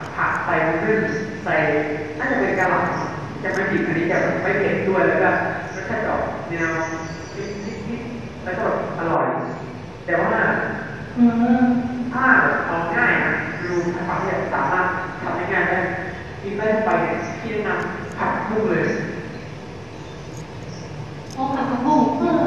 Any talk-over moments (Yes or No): No